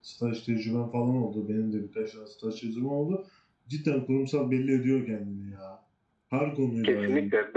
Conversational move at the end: taking over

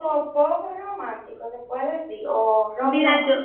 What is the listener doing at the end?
taking over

